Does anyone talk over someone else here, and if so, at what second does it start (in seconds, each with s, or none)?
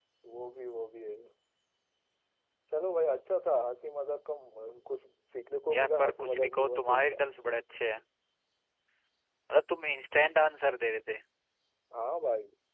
5.7 s